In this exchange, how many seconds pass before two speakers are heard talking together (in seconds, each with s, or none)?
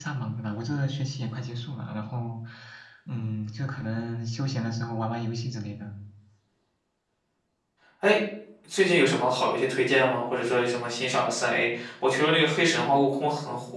none